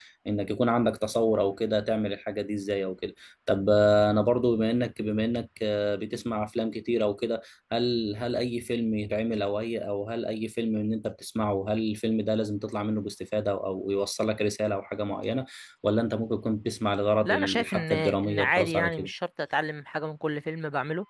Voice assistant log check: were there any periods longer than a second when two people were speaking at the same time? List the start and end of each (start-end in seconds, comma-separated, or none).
17.2-19.1